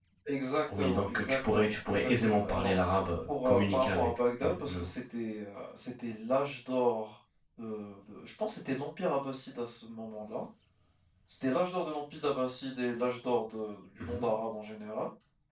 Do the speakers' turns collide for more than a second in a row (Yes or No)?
Yes